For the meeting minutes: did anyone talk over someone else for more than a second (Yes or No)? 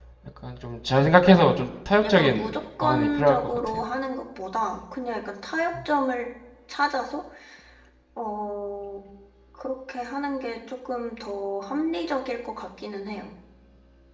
Yes